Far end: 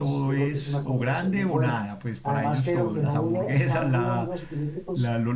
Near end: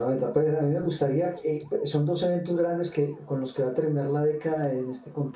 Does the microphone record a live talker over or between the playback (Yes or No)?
Yes